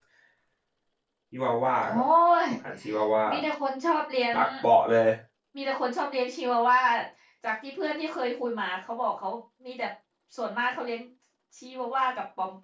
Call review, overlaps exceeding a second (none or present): none